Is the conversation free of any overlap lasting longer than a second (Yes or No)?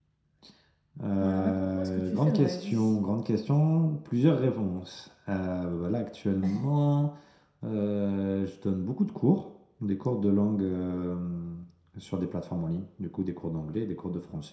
No